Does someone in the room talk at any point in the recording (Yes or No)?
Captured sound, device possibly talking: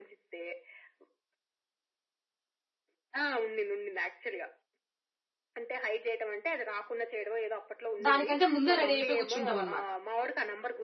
Yes